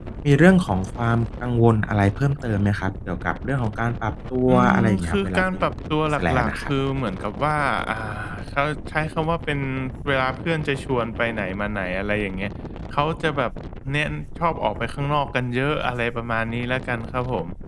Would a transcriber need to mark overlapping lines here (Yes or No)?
Yes